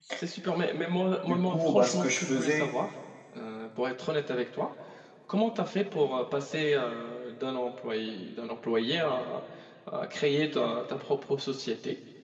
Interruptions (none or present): present